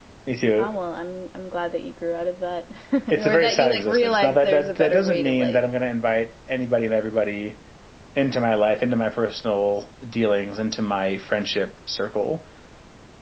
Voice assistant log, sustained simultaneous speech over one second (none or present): present